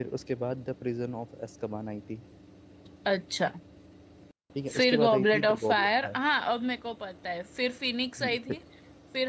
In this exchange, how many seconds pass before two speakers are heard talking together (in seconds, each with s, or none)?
4.7 s